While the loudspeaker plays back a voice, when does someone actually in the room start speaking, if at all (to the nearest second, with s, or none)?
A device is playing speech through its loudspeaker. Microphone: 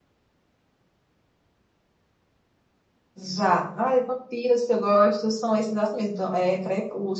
none